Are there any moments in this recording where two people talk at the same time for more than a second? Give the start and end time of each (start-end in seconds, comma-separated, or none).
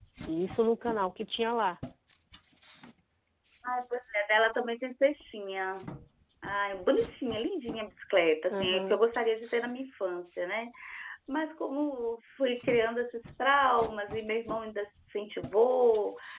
none